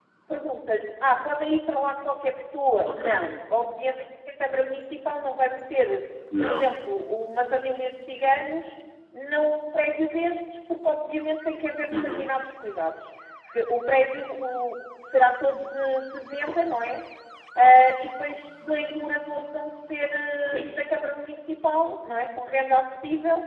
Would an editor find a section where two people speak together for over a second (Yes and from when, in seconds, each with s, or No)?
No